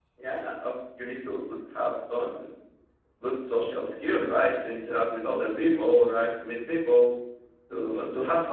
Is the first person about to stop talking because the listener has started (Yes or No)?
No